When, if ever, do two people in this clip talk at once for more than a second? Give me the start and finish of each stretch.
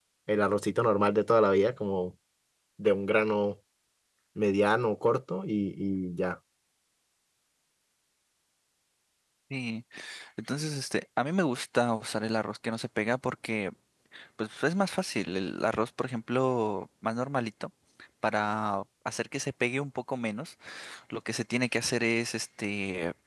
none

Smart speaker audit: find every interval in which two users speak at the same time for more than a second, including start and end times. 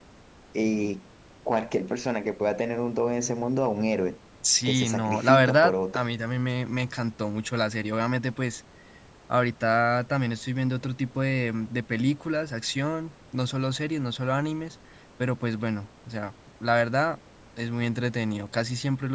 4.7-6.0

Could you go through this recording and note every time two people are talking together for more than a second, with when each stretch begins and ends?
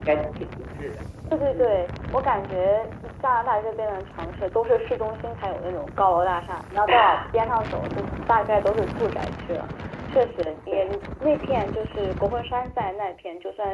none

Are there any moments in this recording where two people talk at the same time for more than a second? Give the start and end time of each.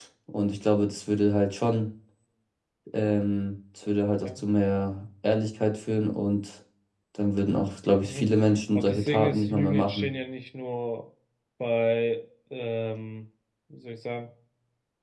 8.7-10.1

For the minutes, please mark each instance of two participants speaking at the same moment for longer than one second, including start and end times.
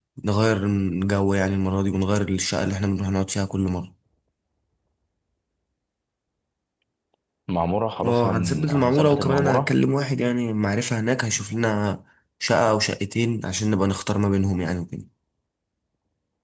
8.0-9.7

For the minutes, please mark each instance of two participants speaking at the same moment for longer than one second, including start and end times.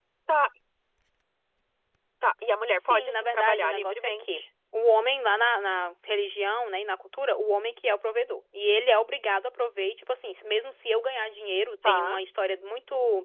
2.8-4.4

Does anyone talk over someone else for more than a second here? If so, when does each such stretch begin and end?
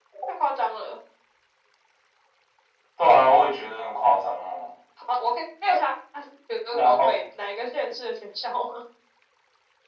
none

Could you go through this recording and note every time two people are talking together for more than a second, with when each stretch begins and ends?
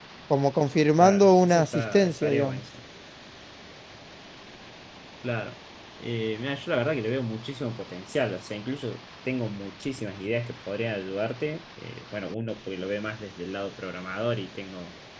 1.0-2.6

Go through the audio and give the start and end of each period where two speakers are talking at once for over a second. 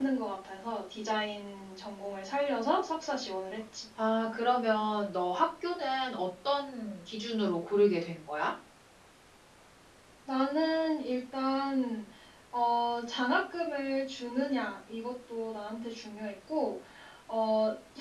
none

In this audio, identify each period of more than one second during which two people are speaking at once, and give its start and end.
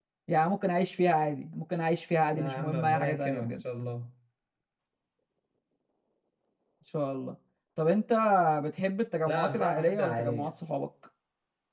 2.3-3.6, 9.3-10.5

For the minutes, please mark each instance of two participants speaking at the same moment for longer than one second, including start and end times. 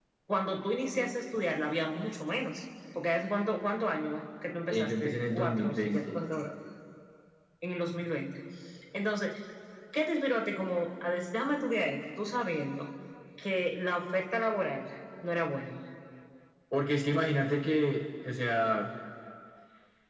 4.7-6.2

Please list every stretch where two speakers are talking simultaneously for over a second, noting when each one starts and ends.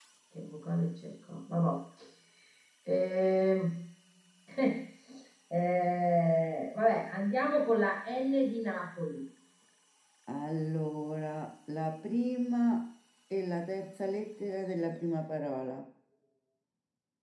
none

